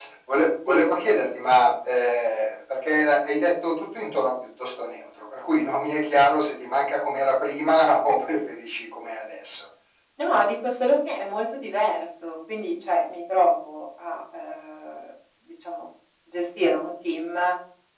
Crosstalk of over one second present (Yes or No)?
No